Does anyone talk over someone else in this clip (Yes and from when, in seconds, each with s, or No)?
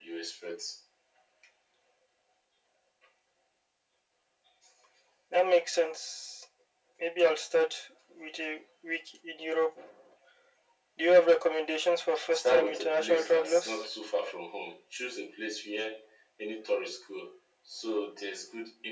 Yes, from 12.4 s